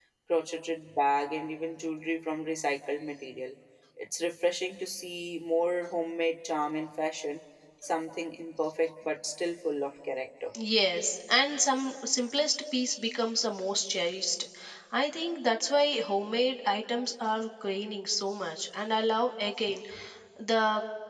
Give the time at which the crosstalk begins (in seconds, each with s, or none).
none